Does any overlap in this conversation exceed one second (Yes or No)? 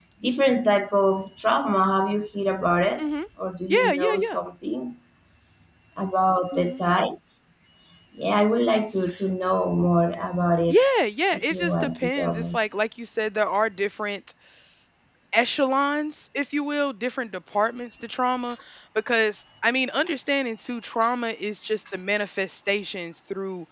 Yes